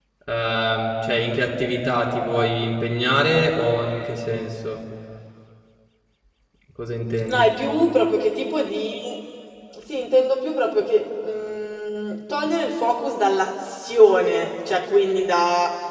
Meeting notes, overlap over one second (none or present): none